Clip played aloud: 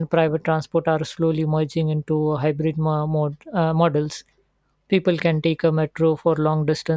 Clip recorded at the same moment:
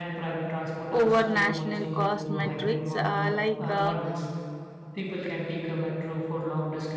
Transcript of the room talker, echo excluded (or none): over national cost metrics. Uh, like uh,